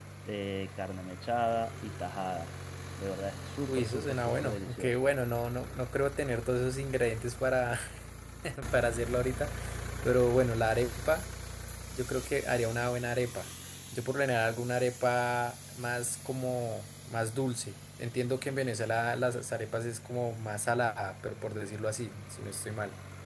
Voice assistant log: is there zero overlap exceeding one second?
No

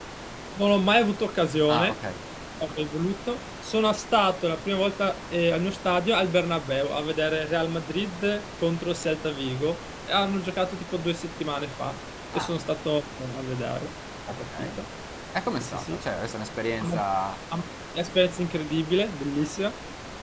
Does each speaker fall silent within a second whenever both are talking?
Yes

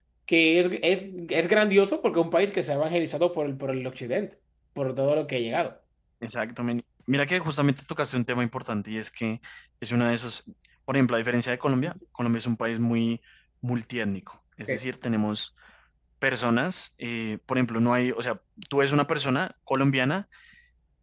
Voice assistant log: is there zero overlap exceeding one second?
Yes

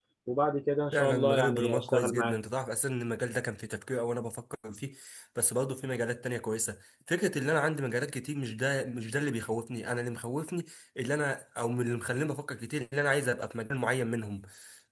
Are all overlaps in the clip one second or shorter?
No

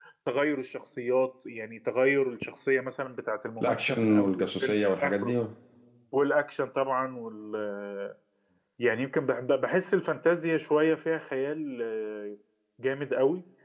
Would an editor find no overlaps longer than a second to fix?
No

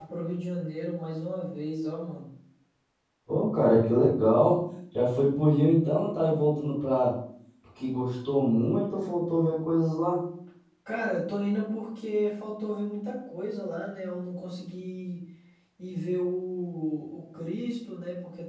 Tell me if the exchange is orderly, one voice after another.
Yes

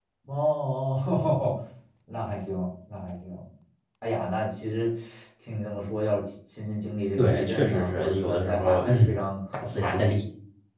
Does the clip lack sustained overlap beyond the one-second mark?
No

